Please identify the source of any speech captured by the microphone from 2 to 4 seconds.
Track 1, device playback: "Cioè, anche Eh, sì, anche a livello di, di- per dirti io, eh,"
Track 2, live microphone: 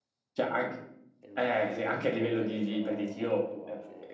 both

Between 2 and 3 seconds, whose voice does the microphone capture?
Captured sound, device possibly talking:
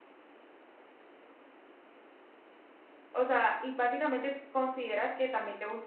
neither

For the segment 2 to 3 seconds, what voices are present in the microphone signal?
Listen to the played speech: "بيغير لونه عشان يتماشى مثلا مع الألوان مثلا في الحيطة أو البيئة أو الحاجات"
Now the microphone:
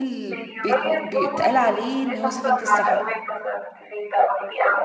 both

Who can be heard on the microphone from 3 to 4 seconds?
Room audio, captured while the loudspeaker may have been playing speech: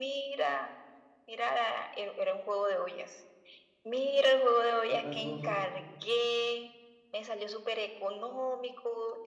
echo only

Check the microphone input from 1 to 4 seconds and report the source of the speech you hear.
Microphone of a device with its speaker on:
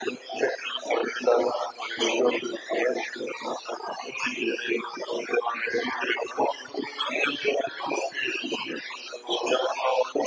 echo only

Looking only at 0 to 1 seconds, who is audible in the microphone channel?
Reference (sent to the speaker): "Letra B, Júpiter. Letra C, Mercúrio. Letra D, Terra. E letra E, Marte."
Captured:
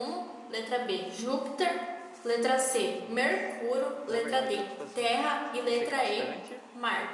echo only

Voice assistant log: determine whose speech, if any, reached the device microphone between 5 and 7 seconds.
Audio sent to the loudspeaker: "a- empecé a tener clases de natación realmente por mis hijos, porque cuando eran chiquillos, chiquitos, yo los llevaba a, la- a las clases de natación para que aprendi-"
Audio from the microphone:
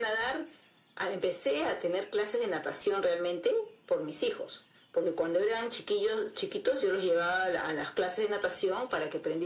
echo only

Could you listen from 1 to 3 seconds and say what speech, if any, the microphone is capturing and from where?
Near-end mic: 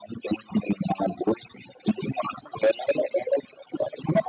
echo only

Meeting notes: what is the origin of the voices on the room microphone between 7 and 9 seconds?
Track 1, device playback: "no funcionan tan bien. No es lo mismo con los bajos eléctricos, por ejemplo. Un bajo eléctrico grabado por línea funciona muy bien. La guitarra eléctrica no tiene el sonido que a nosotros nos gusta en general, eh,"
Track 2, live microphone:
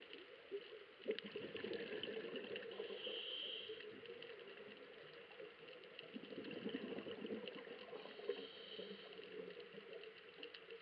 neither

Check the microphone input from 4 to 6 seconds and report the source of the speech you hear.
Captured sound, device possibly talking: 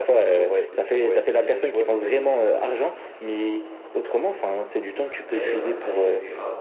both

